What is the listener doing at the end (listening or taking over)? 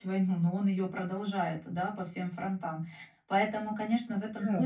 listening